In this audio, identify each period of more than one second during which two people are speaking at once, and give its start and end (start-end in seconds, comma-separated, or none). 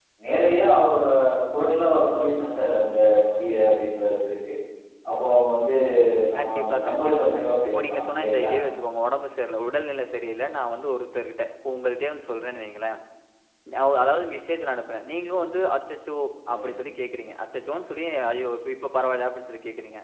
6.4-8.5